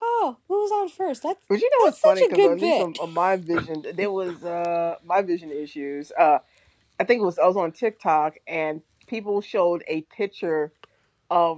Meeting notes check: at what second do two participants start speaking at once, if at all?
2 s

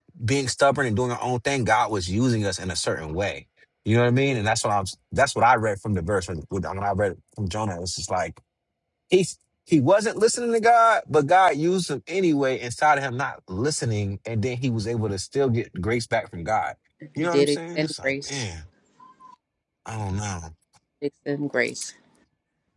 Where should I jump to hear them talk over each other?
17 s

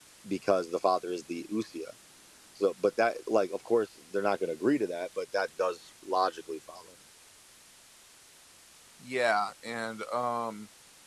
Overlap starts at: none

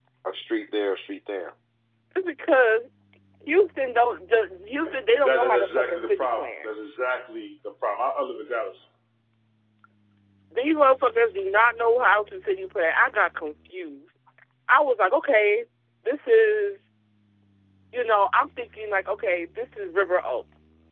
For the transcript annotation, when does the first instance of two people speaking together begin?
5 s

